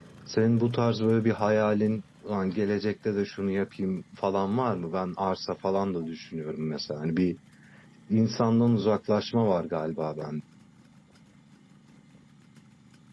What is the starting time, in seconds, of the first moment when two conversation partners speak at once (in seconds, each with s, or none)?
none